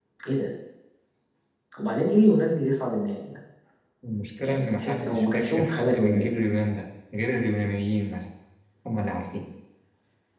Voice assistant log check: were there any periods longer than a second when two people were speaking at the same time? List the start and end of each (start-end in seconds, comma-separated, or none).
4.4-6.3